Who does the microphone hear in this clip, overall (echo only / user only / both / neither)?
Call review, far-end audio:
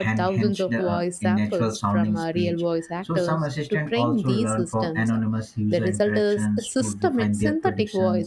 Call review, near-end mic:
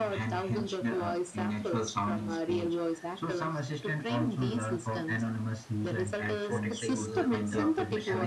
both